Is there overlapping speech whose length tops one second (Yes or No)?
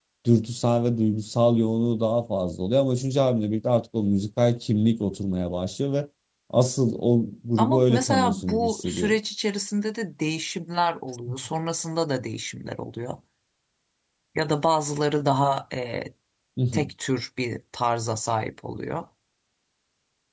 Yes